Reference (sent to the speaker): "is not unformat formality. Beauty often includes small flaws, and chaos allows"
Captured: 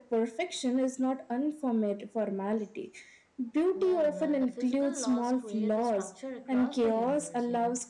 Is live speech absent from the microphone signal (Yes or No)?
No